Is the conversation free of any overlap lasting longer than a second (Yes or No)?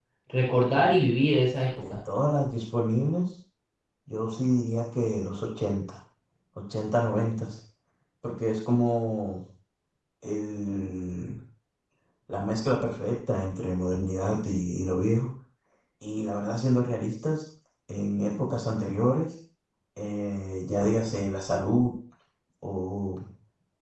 Yes